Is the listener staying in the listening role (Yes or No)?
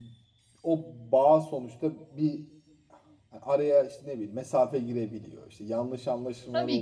No